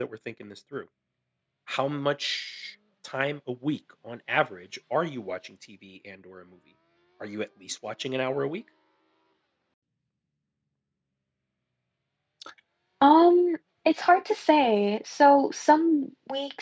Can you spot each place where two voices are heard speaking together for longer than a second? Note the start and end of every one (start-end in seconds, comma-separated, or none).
none